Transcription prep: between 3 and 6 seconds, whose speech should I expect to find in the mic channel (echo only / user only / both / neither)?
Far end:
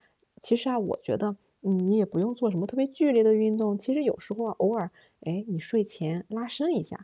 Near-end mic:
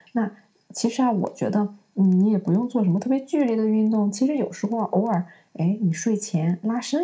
echo only